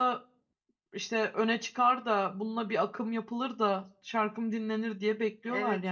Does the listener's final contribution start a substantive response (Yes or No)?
Yes